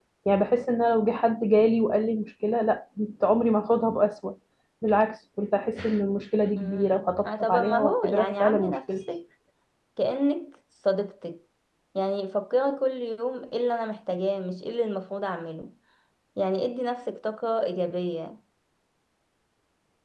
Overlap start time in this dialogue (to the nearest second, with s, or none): 7 s